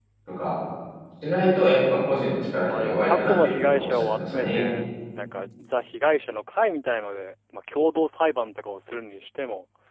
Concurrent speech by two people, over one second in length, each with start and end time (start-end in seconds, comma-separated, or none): 2.7-4.7